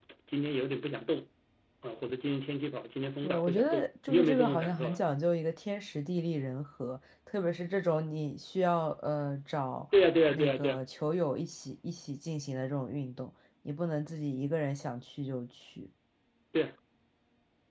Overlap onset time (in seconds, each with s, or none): 3.2 s